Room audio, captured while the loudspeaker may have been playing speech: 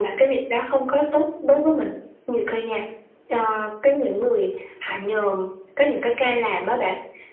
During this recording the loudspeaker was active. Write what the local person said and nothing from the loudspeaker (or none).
none